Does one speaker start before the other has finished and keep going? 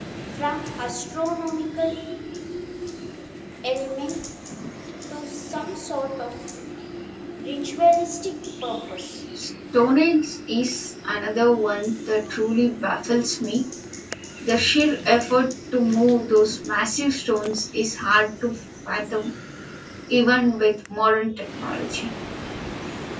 No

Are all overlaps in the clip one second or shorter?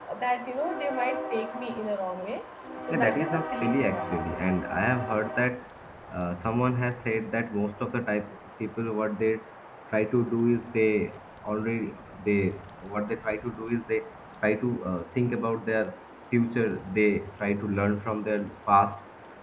No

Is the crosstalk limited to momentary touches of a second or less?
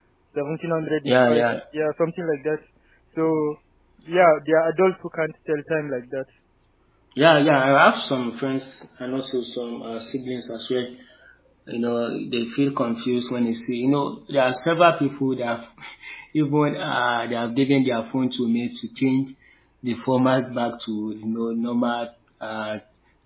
Yes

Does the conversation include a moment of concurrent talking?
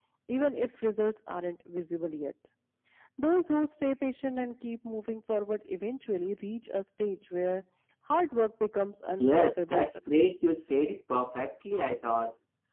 Yes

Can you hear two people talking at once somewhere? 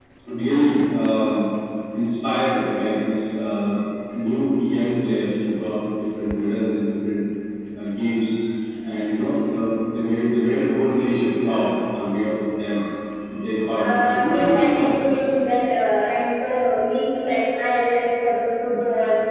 Yes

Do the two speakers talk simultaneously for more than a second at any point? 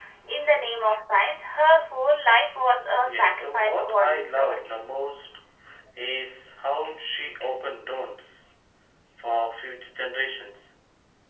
Yes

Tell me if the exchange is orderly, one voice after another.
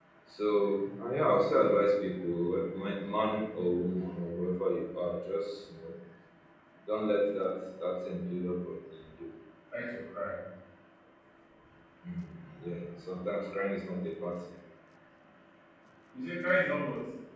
Yes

